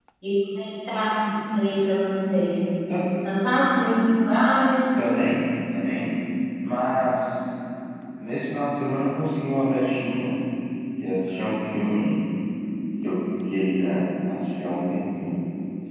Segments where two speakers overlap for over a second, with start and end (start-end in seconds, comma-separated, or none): none